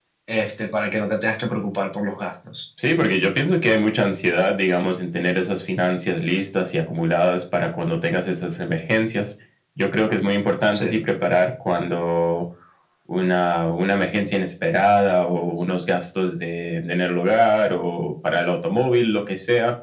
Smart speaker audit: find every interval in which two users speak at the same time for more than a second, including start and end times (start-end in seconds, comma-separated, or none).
none